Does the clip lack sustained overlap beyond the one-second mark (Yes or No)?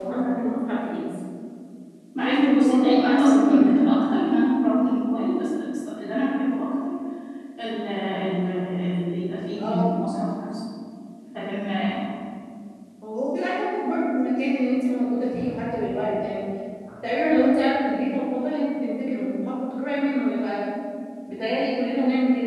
No